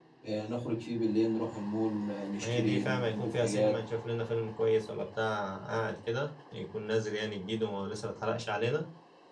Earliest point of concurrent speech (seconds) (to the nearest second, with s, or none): 2 s